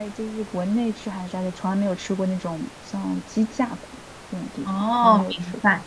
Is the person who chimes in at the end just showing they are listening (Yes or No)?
No